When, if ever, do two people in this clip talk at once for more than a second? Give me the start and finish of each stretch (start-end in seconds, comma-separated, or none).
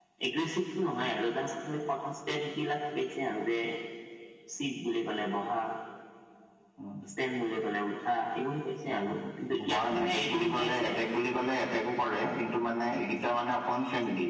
9.7-10.9